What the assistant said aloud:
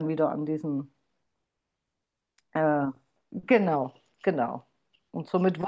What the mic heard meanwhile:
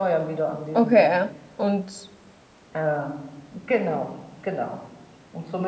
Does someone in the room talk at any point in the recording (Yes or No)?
Yes